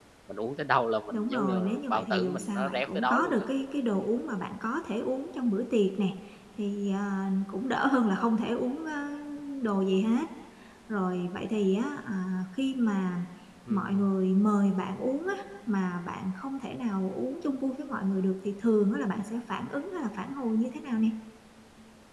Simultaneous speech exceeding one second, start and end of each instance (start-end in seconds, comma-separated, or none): 1.1-3.5